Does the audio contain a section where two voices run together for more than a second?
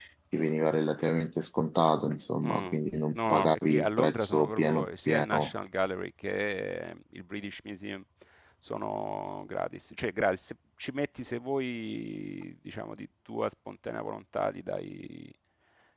Yes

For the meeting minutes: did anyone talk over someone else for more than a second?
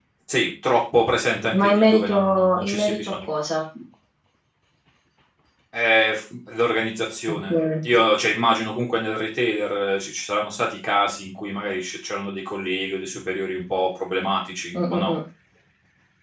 Yes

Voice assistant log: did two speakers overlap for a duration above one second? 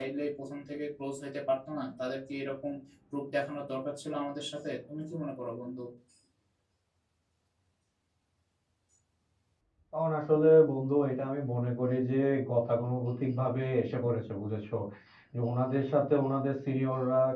No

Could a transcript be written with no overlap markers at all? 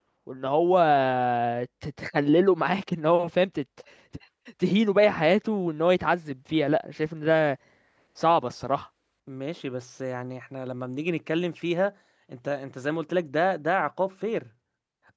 Yes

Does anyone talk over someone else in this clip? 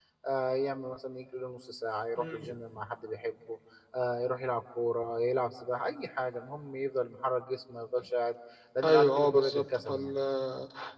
Yes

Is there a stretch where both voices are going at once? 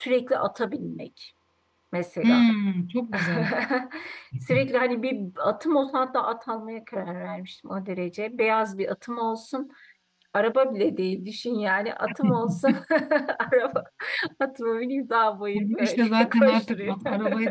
Yes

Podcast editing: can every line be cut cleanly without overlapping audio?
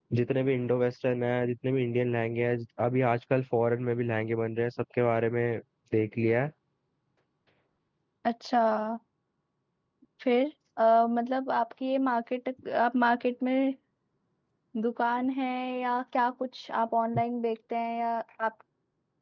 Yes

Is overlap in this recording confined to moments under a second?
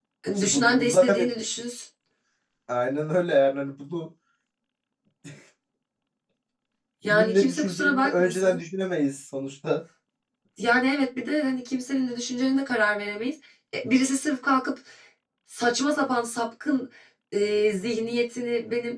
No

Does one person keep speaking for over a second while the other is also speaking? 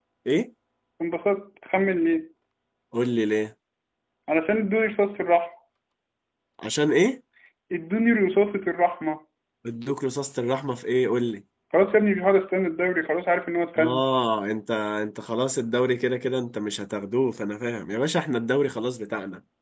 No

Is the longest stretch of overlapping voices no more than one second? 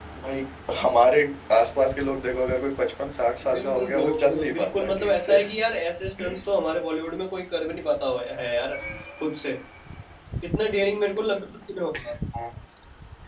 No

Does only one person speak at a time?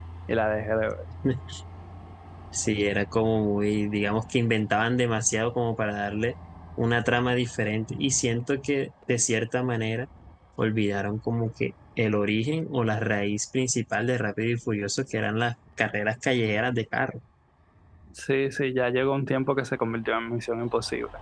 Yes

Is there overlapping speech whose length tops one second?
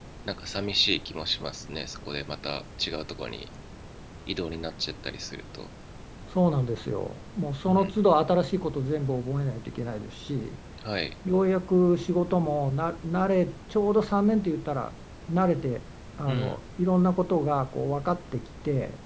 No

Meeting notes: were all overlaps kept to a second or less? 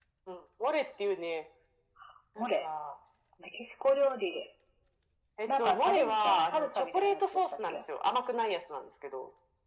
No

